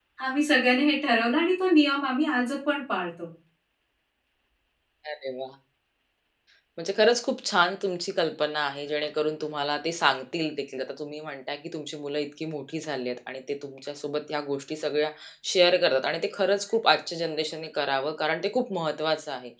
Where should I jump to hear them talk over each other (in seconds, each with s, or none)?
none